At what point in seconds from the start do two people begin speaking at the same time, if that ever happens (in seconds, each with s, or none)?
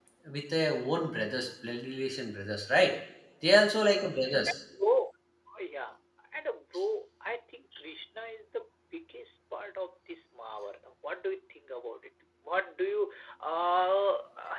none